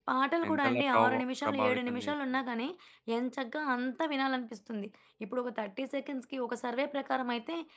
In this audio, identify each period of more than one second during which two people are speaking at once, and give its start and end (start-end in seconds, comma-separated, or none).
0.5-2.1